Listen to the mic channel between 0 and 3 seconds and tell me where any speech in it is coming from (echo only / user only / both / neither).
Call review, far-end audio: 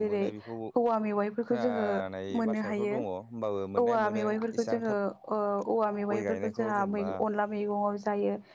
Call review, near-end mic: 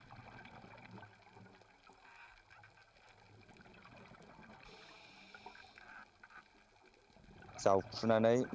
neither